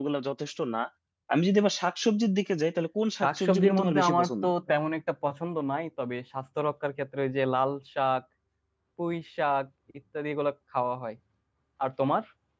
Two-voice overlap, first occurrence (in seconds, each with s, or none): 3.2 s